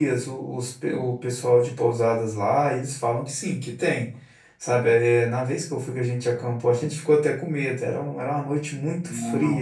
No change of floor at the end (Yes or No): Yes